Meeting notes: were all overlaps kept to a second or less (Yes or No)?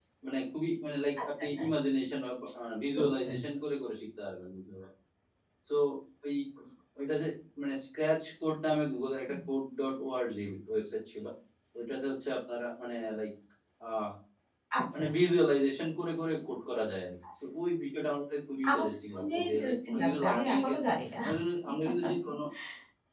No